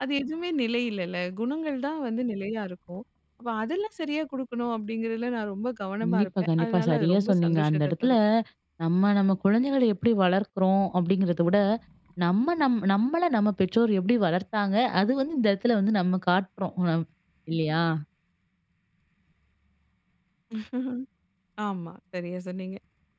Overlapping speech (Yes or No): Yes